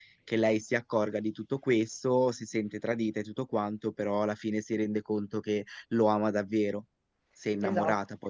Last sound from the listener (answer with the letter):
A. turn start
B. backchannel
A